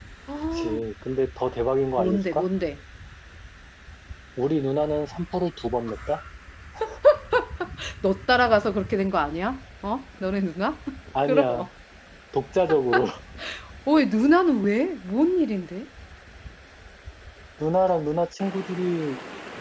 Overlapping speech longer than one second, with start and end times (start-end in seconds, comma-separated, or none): none